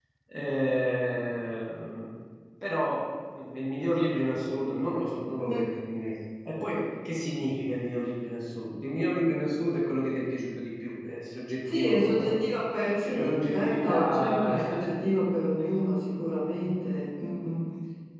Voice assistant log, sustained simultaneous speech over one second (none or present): present